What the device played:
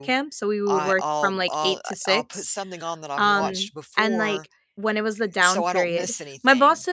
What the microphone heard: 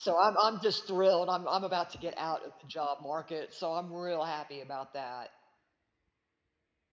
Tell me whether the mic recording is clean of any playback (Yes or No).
Yes